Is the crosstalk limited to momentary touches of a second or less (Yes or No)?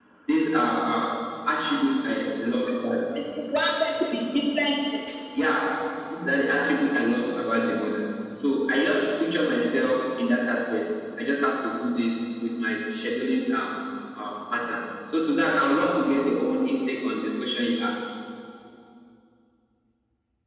Yes